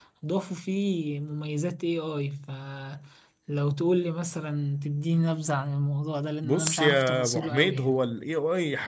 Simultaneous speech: Yes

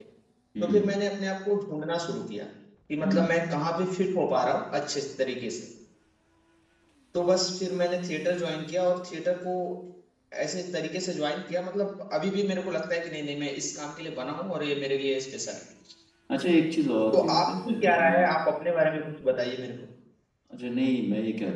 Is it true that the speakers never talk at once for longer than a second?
No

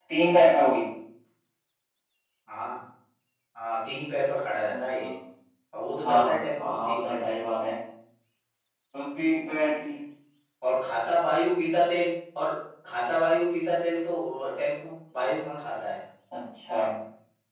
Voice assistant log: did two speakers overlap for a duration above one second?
Yes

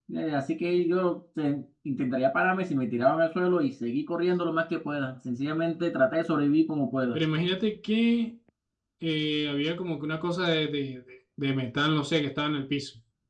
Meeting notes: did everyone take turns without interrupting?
Yes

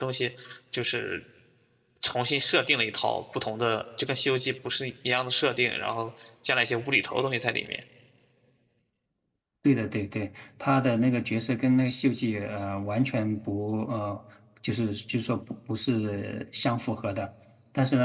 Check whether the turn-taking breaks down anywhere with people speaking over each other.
No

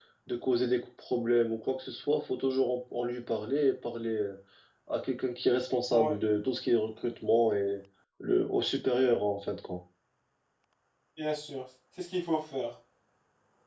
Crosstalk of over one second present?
No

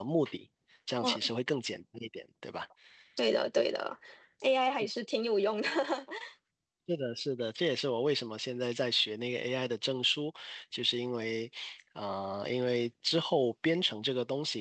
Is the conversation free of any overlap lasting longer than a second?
Yes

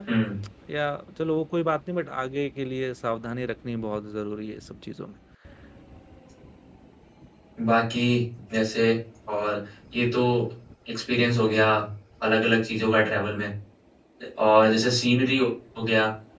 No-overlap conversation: Yes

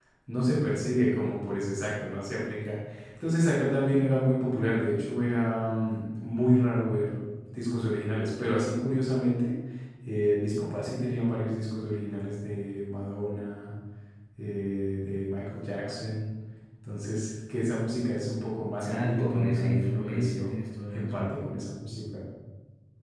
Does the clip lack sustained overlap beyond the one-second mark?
No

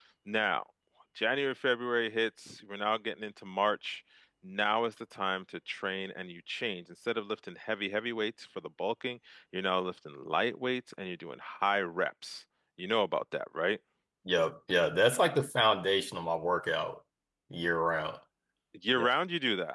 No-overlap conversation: Yes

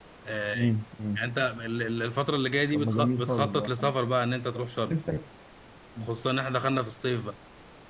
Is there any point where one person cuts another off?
Yes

